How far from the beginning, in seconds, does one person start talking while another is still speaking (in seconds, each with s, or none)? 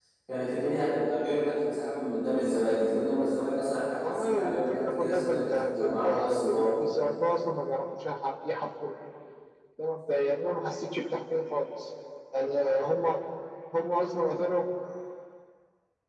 4.0 s